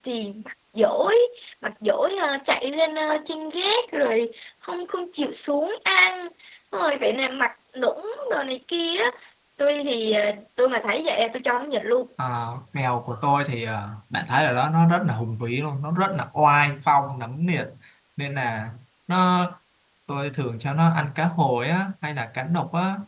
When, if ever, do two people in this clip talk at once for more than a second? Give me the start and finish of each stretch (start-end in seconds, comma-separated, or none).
none